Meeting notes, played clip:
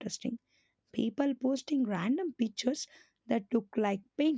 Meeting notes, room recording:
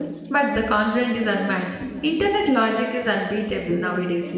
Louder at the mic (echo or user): user